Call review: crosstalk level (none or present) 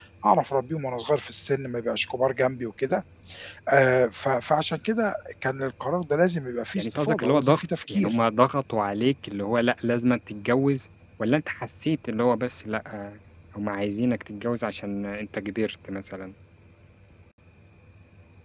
present